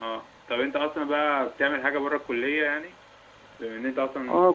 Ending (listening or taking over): taking over